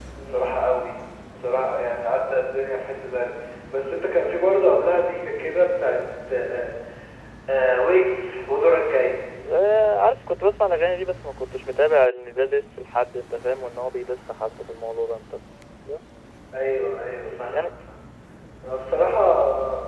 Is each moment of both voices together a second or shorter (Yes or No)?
Yes